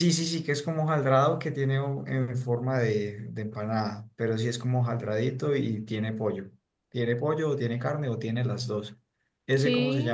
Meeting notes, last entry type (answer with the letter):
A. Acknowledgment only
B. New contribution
B